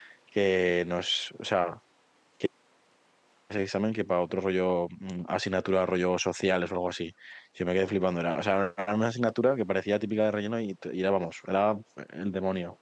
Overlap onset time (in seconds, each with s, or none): none